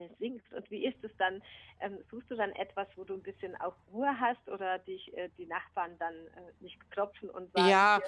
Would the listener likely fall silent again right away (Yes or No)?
No